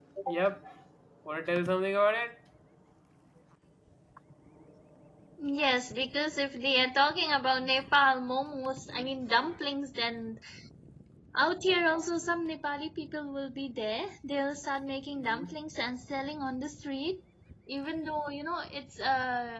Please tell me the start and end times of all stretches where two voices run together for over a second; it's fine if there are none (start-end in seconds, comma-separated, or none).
none